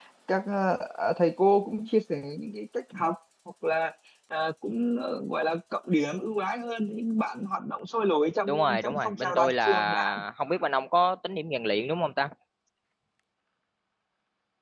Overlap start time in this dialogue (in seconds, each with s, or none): 8.5 s